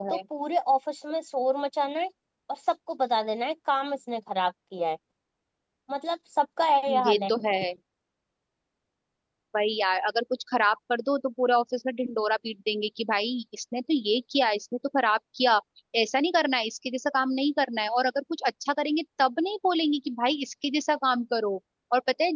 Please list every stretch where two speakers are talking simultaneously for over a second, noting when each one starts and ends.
none

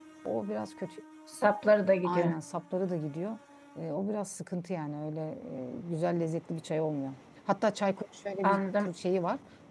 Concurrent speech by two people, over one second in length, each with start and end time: none

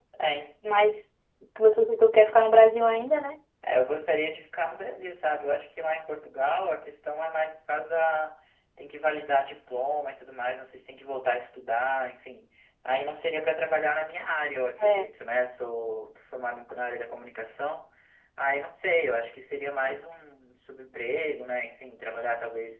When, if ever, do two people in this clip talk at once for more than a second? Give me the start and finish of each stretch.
none

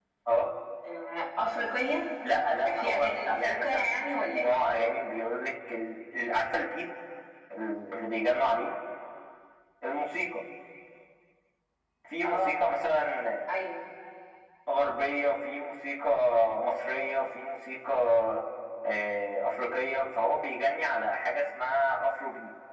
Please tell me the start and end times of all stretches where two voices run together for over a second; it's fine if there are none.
2.6-4.6

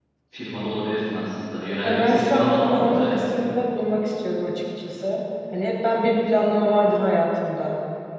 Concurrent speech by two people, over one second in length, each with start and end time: 1.8-3.4

